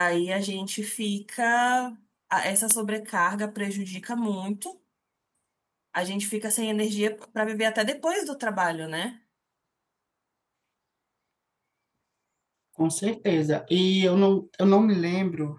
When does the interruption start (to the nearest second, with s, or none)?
none